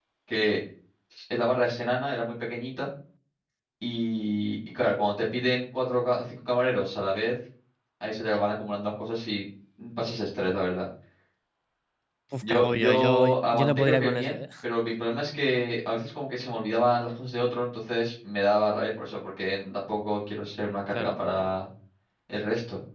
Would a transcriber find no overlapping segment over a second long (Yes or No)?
No